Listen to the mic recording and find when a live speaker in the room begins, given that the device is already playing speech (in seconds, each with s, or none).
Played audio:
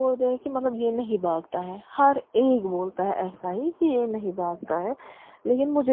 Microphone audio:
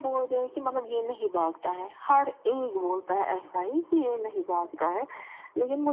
none